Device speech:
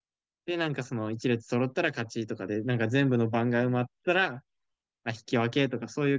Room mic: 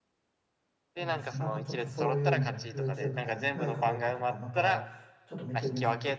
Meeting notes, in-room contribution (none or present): present